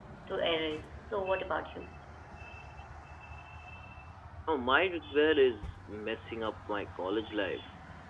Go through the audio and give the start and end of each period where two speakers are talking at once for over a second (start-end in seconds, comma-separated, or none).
none